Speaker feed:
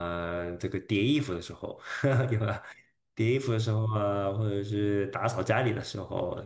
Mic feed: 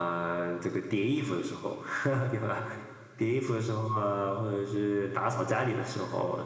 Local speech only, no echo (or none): none